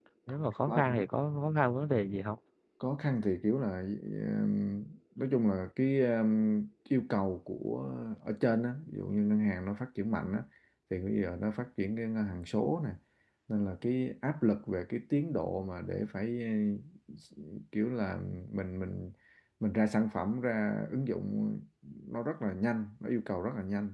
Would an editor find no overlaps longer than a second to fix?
Yes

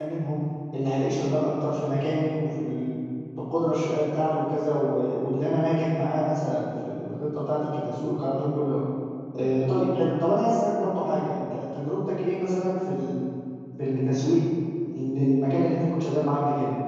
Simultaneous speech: No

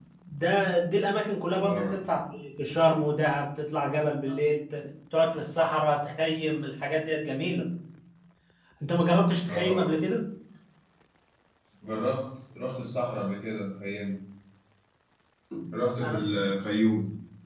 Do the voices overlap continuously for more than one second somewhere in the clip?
No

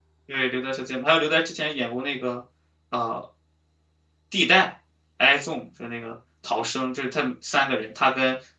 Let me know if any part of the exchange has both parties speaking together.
No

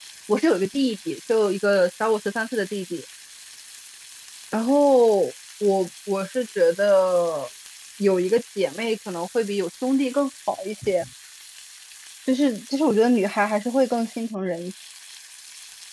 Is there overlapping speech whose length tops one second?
No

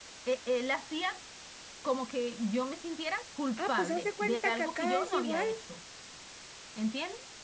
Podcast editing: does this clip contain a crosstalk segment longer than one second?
Yes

